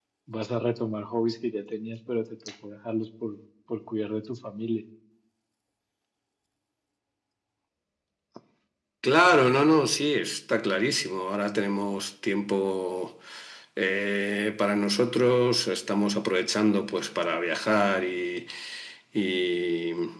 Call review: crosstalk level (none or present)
none